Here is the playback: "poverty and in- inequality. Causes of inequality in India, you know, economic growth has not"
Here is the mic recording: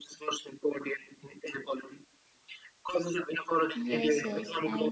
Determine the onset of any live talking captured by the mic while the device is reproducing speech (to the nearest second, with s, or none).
4 s